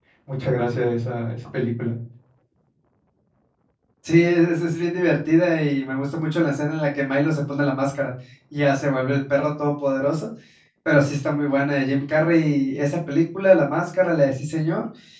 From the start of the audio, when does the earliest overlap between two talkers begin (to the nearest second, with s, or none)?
none